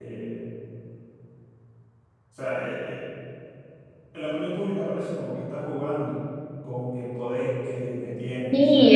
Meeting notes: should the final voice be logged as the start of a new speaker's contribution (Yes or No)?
Yes